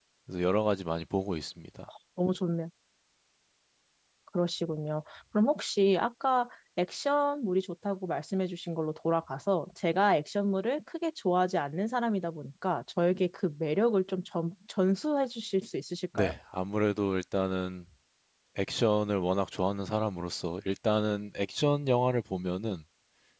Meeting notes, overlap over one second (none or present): none